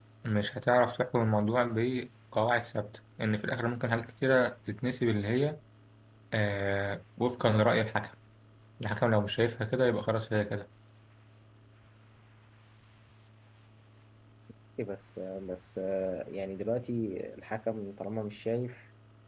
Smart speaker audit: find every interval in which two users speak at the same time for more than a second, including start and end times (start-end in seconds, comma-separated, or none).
none